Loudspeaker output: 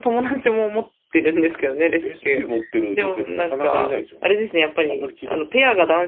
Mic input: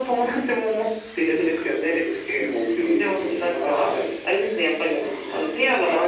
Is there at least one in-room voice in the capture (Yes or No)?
No